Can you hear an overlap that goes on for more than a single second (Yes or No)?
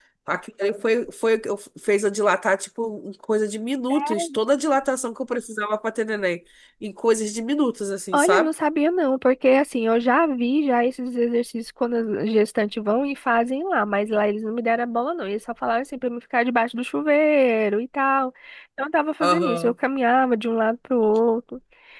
No